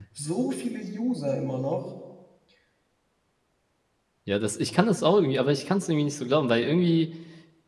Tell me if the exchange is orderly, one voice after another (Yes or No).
Yes